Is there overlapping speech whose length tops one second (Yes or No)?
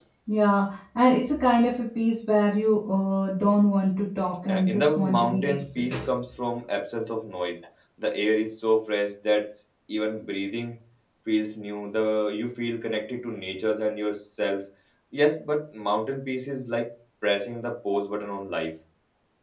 Yes